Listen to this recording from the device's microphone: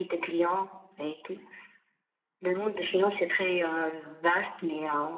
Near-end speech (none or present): none